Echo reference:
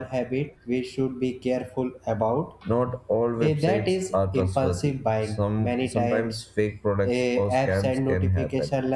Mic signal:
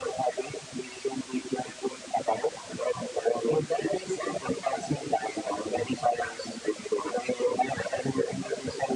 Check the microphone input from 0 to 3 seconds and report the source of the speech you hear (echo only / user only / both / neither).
echo only